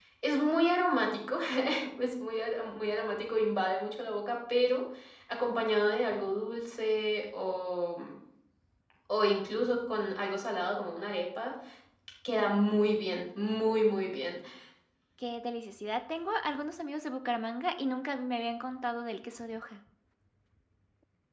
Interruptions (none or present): none